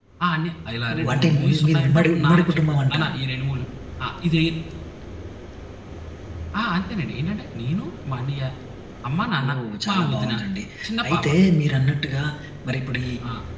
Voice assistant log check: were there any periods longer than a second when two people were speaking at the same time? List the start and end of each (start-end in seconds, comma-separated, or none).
0.9-3.1